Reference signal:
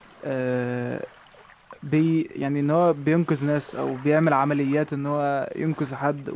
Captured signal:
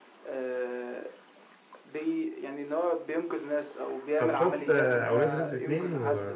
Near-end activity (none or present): present